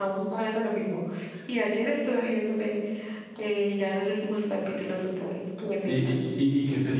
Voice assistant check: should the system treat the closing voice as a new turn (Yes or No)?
Yes